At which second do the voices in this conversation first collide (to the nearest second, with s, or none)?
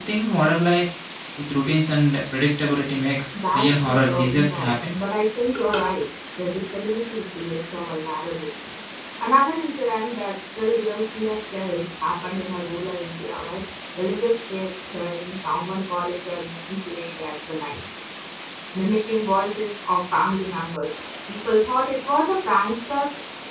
4 s